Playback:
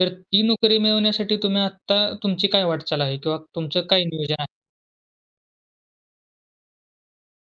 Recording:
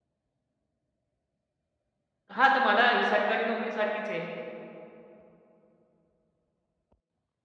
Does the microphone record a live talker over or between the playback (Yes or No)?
Yes